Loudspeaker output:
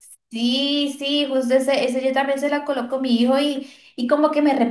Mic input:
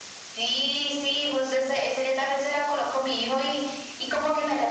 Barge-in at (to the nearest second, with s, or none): none